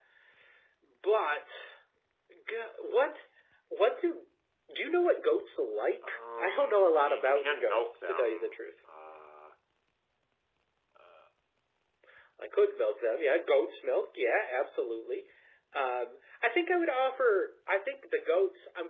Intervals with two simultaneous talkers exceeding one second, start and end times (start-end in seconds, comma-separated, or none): 6.0-8.6